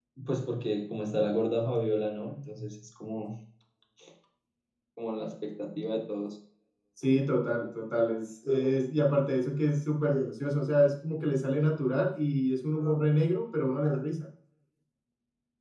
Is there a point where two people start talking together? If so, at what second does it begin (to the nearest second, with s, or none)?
none